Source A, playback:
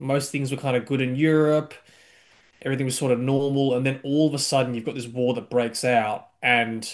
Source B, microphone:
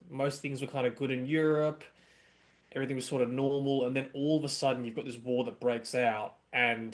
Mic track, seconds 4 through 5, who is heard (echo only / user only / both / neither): echo only